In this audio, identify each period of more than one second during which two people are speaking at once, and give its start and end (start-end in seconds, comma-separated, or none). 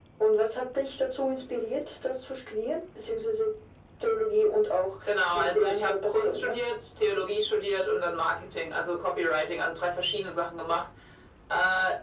5.3-6.6